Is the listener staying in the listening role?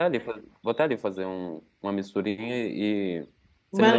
Yes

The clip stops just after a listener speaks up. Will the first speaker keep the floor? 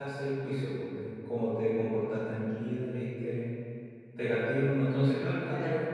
Yes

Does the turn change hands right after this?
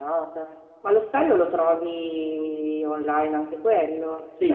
Yes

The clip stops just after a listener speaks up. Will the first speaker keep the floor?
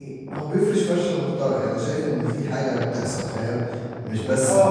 No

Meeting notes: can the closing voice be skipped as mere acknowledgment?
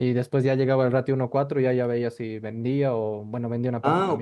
No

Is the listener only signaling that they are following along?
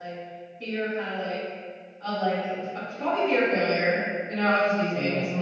Yes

